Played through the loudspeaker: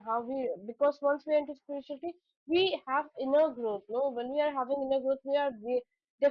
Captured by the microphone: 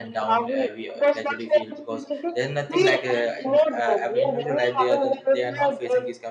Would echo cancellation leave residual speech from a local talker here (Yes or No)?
Yes